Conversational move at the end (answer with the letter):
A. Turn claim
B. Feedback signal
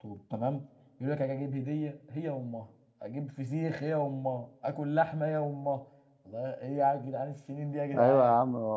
A